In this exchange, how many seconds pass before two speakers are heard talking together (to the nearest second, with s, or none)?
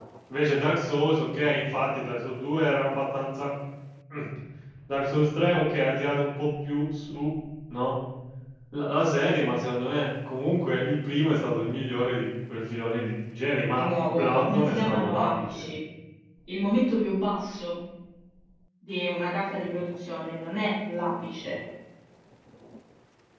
14 s